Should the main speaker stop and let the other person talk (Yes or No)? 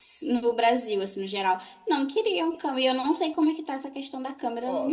Yes